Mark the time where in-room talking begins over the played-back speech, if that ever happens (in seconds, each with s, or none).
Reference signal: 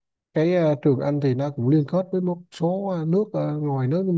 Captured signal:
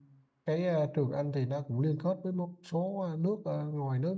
none